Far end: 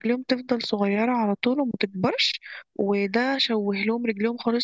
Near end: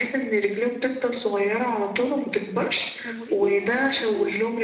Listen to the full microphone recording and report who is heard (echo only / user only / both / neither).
both